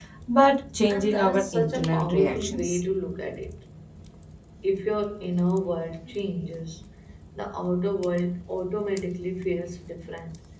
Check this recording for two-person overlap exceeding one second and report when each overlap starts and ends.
0.9-2.8

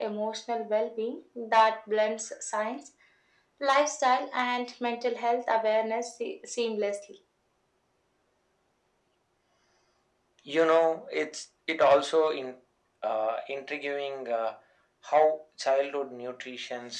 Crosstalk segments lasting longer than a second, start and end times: none

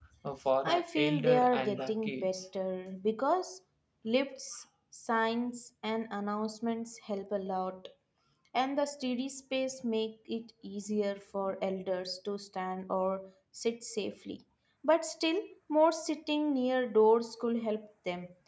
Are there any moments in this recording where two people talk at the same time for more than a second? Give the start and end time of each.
0.6-2.5

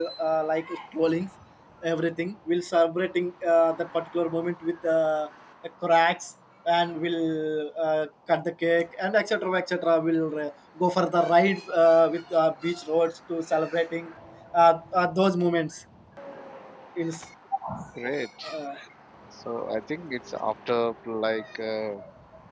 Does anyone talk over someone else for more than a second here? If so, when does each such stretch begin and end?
none

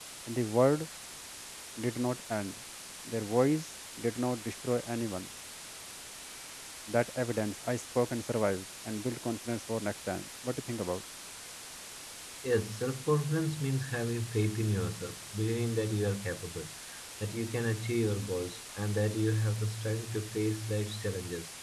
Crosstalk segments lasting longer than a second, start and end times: none

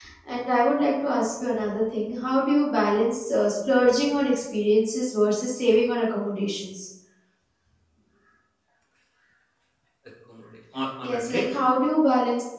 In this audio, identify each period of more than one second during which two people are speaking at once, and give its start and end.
none

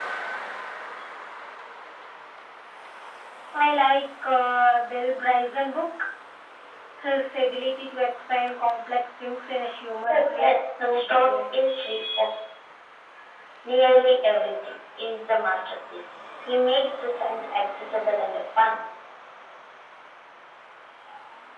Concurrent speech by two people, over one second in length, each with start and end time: 10.1-11.5

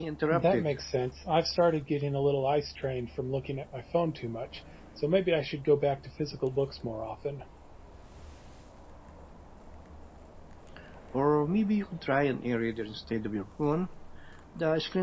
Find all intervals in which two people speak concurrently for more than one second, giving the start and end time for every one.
none

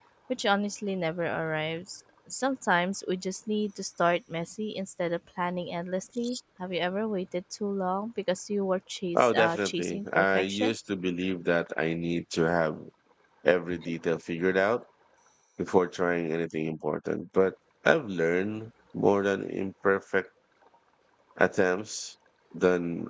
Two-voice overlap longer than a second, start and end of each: 9.2-10.7

